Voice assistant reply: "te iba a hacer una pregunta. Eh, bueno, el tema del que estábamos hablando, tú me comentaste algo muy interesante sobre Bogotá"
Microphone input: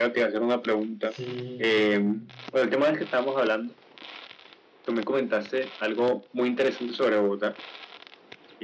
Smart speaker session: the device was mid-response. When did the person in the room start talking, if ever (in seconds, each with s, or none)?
1.0 s